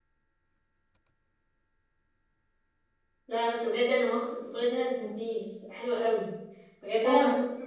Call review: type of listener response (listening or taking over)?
listening